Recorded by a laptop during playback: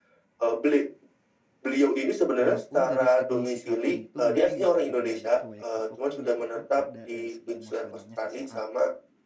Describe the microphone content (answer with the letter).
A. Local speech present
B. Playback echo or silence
A